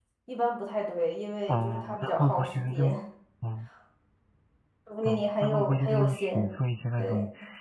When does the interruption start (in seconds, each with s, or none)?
1.5 s